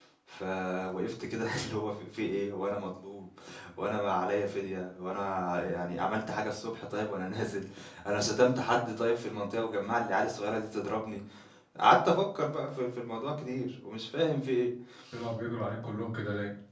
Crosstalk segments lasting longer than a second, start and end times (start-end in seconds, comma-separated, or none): none